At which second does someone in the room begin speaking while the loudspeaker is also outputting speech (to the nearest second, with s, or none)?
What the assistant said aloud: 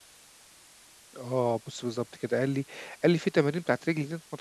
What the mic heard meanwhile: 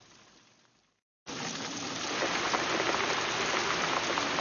none